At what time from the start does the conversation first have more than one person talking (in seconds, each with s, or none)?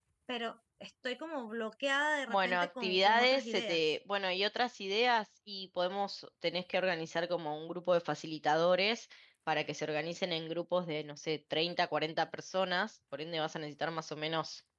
2.3 s